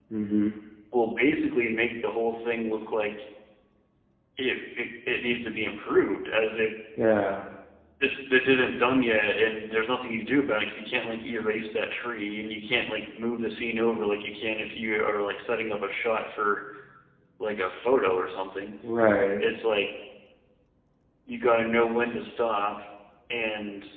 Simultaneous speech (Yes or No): No